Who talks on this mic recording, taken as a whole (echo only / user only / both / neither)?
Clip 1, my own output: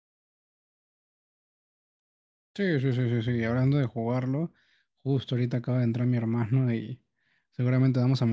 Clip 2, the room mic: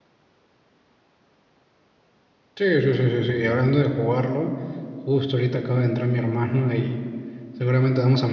echo only